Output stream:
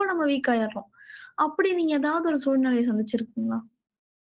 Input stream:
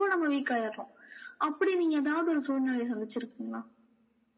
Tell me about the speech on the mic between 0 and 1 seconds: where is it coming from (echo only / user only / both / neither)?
echo only